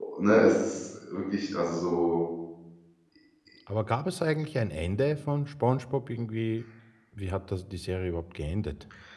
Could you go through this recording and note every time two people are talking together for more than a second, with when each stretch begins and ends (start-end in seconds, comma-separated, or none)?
none